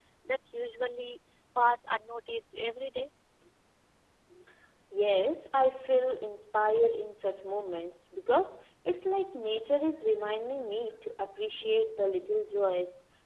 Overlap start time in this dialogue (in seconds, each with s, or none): none